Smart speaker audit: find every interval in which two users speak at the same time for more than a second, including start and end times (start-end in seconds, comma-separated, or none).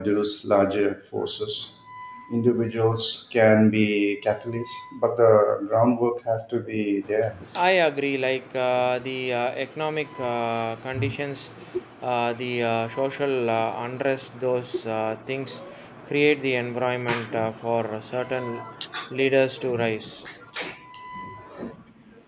none